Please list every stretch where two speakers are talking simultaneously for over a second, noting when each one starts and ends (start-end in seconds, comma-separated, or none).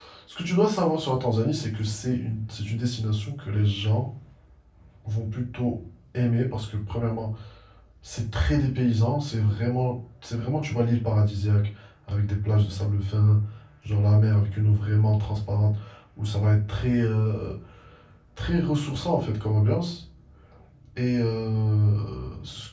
none